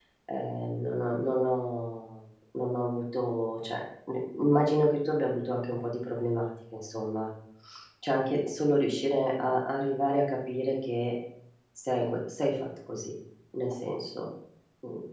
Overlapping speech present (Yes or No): No